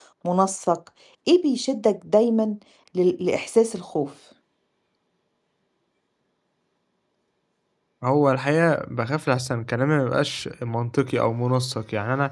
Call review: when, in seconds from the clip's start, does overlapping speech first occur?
none

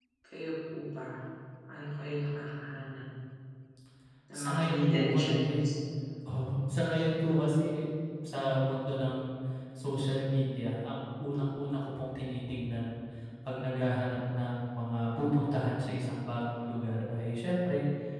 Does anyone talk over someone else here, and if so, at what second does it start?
4.3 s

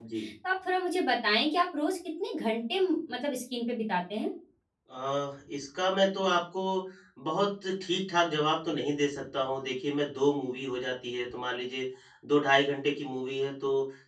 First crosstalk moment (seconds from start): none

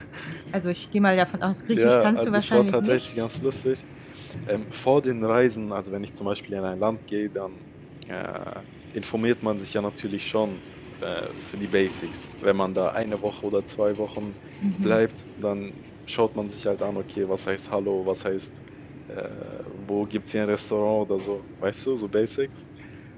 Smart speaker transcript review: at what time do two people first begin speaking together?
1.6 s

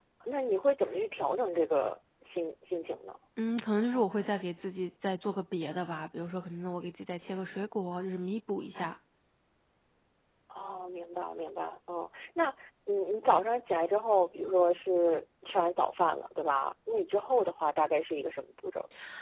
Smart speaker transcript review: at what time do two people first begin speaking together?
none

